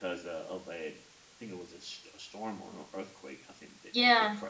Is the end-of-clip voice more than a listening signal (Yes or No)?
Yes